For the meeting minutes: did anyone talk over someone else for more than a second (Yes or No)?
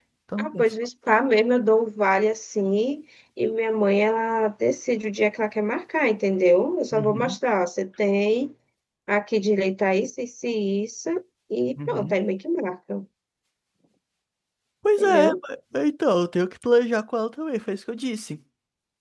No